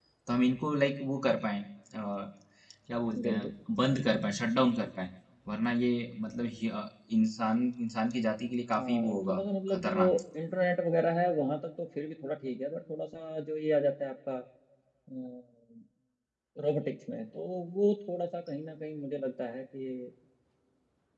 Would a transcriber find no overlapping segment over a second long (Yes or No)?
No